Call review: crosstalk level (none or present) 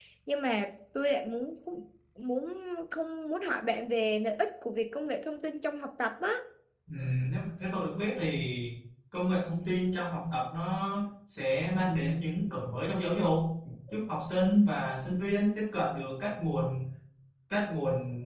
none